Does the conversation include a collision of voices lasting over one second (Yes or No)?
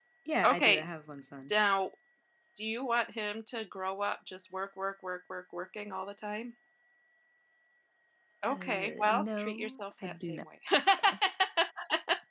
Yes